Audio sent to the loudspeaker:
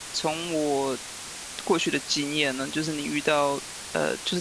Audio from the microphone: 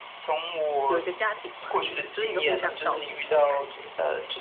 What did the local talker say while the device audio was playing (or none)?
有一个家庭嘛，就是一个互相照顾的感觉。